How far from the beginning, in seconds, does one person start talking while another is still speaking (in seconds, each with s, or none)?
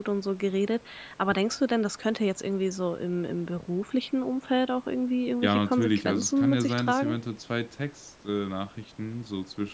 5.4 s